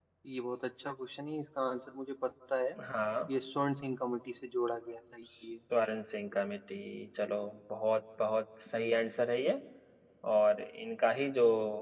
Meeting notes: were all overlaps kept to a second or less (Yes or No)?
Yes